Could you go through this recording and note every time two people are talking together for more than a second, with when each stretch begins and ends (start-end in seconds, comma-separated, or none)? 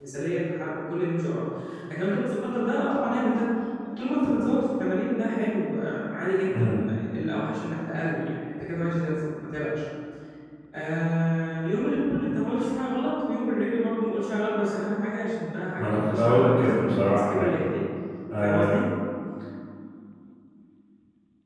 15.8-17.5